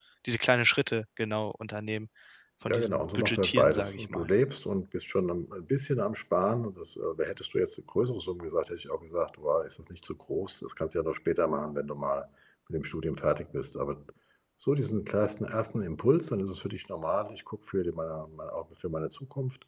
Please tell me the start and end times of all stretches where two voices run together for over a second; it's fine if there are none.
2.7-4.3

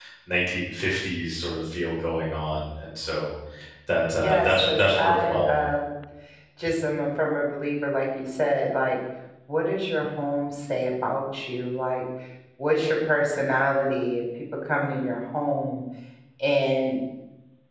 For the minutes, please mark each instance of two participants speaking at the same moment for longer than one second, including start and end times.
4.2-5.5

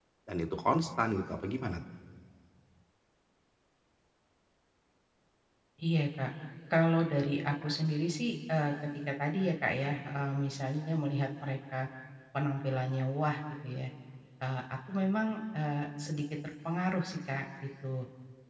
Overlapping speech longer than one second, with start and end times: none

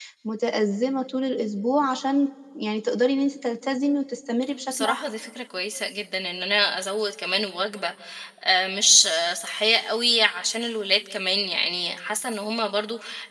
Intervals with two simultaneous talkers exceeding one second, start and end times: none

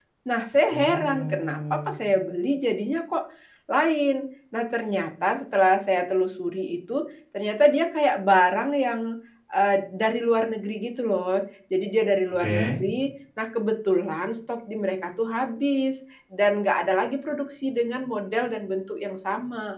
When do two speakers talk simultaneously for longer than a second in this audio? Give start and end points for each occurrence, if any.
0.7-1.9

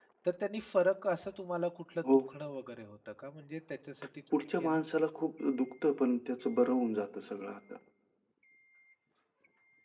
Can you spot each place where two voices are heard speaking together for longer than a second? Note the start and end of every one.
none

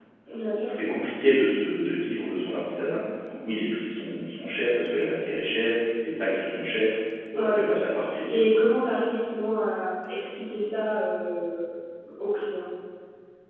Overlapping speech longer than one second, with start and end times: none

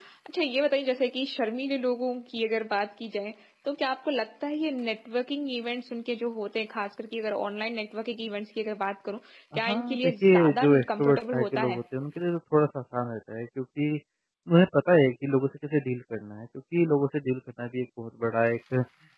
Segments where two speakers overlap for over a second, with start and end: 9.6-11.8

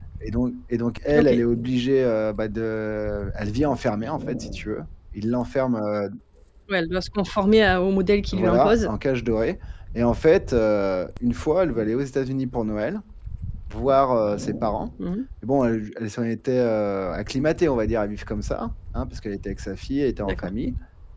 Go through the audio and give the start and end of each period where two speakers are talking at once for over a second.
none

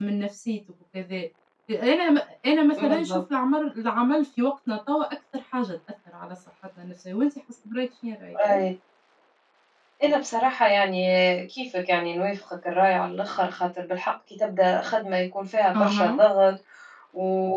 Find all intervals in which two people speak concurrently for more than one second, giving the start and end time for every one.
none

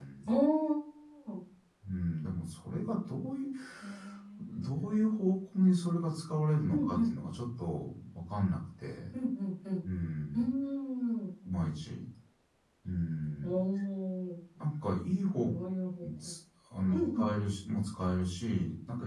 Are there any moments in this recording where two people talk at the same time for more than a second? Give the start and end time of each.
none

